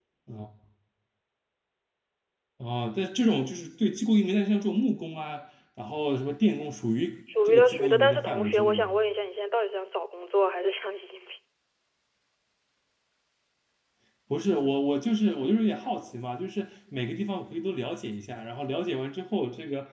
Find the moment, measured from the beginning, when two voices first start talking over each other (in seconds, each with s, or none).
7.3 s